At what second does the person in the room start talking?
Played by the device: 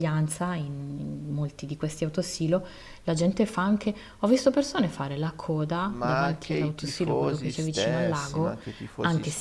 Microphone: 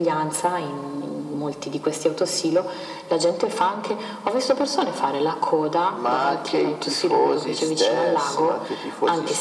none

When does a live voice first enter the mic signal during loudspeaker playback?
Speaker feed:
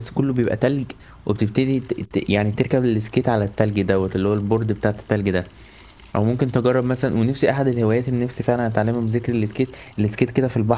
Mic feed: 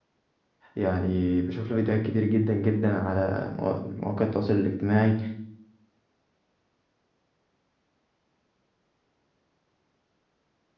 0.8 s

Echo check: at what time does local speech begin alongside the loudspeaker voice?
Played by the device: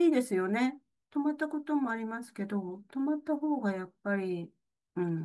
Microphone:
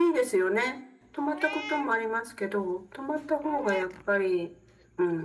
none

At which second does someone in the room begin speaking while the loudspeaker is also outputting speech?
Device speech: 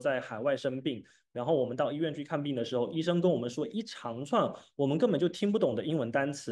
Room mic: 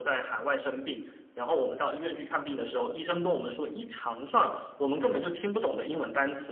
none

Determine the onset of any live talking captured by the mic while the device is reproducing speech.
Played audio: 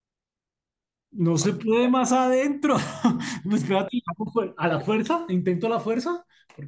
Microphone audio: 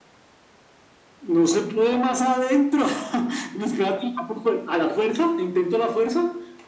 none

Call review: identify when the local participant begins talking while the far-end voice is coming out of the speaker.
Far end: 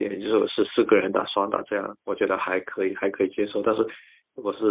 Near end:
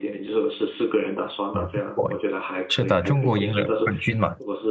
1.5 s

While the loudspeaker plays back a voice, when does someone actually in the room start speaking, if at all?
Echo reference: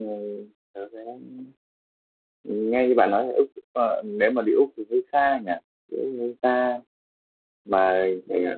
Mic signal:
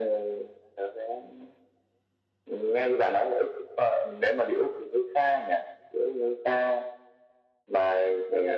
none

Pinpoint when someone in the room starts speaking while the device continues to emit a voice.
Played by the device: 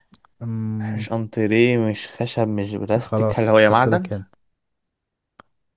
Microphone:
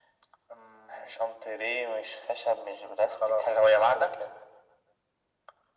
none

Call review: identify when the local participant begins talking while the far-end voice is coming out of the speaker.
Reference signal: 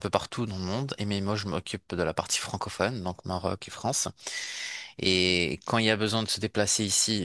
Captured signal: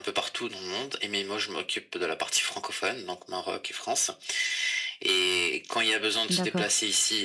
6.3 s

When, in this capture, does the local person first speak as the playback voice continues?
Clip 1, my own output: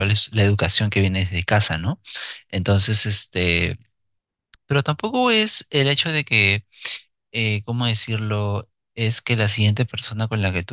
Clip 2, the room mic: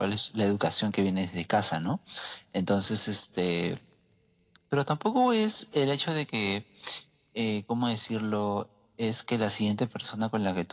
none

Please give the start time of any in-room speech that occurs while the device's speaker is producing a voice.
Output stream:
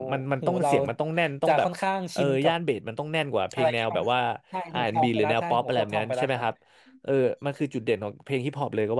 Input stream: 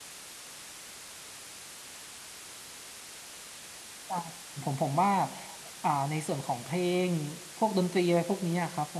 4.1 s

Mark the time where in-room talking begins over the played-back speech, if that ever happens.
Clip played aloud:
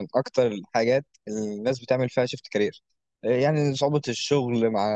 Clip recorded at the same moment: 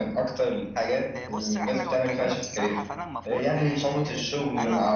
1.1 s

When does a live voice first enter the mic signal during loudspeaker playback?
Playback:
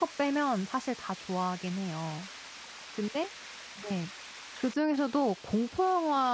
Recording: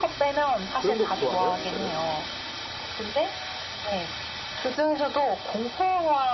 0.8 s

